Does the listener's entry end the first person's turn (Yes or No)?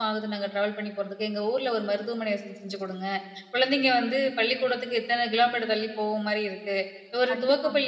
No